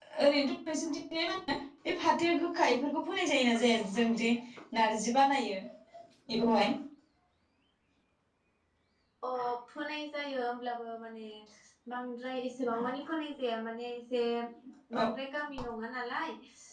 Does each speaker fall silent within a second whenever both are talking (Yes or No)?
Yes